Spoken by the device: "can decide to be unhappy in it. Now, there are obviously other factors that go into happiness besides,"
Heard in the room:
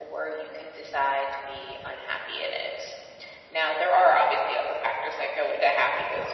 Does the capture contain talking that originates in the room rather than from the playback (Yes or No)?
No